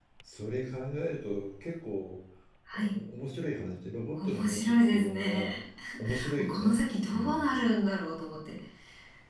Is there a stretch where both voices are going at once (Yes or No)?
Yes